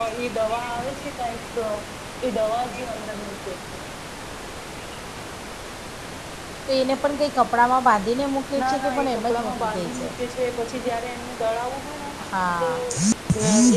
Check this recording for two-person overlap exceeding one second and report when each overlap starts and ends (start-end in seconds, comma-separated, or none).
8.6-10.1